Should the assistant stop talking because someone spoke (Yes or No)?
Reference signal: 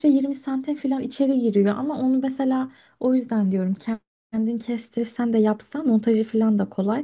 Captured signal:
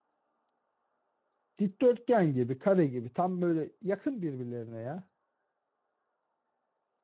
Yes